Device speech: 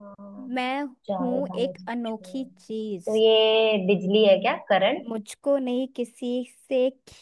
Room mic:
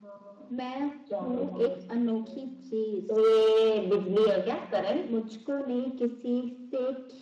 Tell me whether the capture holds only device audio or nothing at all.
Yes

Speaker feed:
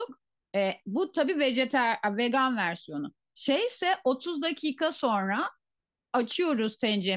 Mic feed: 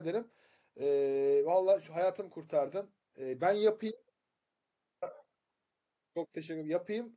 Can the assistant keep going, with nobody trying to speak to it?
No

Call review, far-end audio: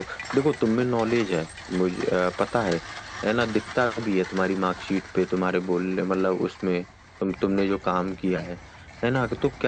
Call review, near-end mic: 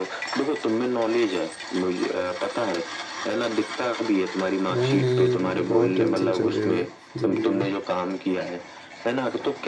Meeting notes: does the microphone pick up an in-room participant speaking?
Yes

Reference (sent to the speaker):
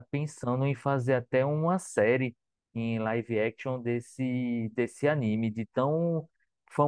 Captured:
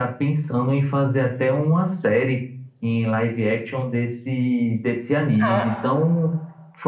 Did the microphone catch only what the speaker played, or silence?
No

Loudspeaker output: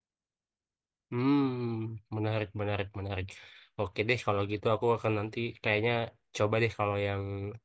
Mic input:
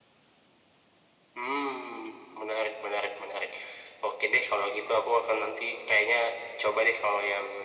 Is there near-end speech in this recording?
No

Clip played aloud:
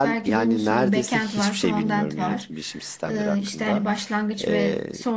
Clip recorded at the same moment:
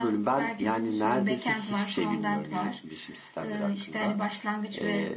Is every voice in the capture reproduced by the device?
Yes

